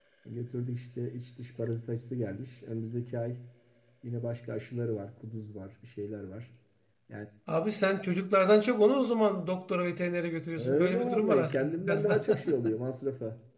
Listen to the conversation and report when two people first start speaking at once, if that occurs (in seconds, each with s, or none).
10.6 s